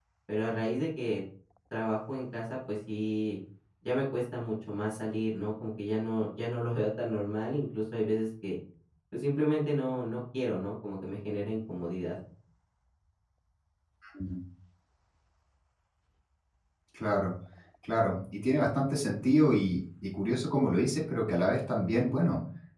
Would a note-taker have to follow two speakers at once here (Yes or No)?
No